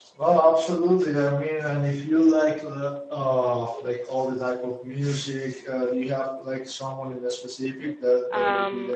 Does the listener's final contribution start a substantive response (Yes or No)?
Yes